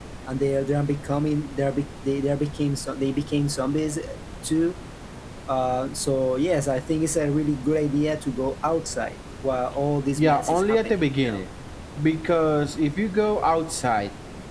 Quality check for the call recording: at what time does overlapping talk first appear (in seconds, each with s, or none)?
10.2 s